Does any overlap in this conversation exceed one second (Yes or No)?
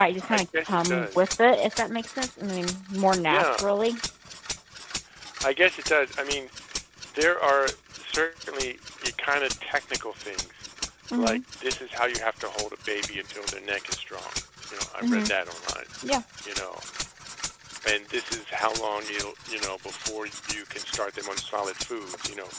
Yes